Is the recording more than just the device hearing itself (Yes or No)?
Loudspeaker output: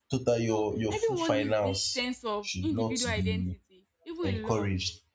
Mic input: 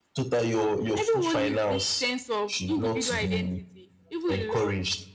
No